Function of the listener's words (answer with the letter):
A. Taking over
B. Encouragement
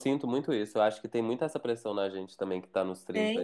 B